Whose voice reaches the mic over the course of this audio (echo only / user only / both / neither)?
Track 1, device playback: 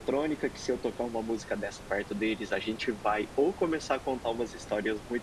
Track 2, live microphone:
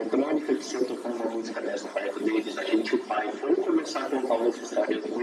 echo only